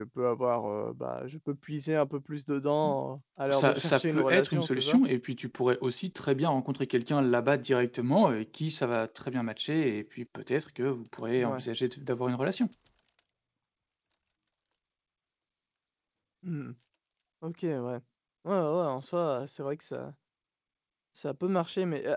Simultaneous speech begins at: 3.5 s

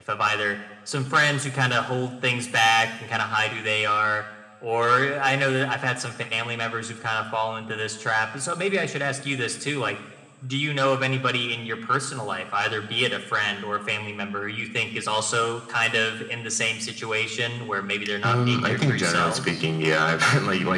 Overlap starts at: 18.2 s

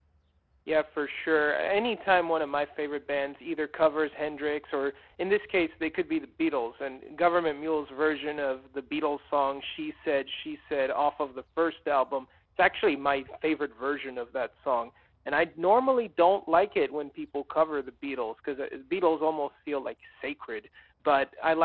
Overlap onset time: none

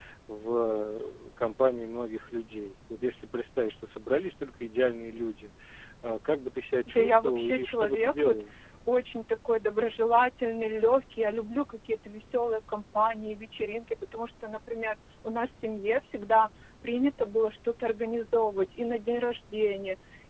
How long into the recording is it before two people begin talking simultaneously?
6.9 s

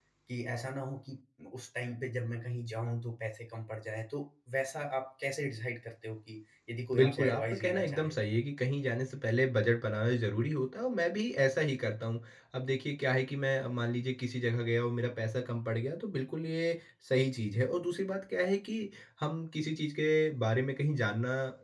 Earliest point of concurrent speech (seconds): 6.9 s

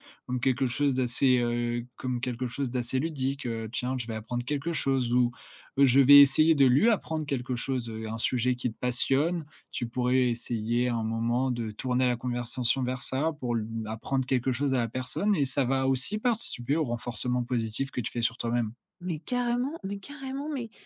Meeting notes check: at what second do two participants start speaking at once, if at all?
none

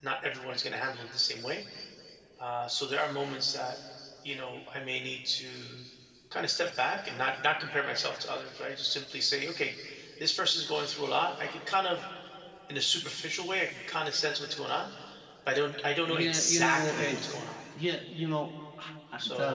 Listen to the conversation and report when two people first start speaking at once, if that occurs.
16.1 s

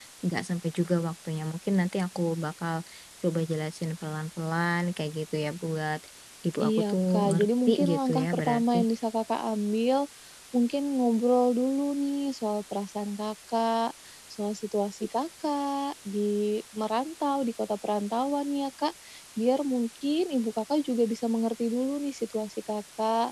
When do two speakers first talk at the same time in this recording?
6.6 s

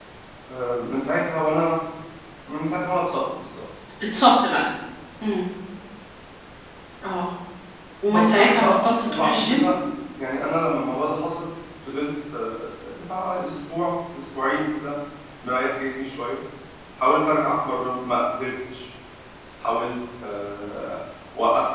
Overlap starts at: 8.1 s

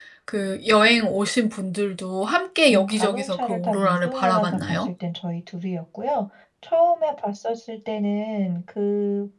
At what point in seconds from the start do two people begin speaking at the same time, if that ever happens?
2.7 s

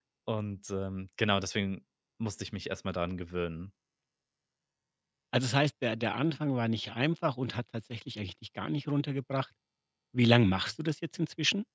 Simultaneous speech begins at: none

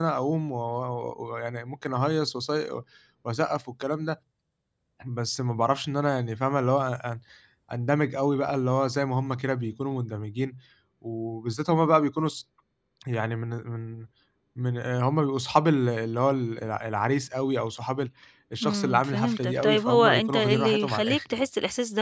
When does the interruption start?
18.6 s

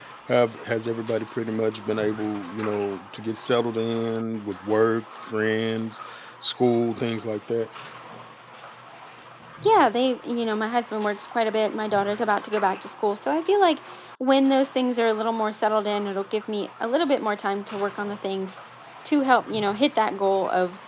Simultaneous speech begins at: none

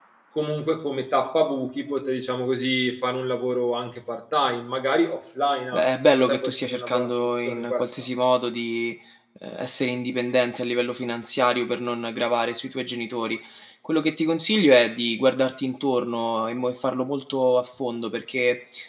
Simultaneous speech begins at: 5.7 s

